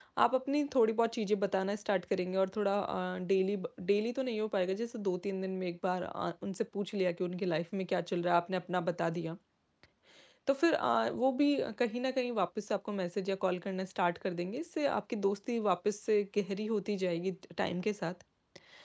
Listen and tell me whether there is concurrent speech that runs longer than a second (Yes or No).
No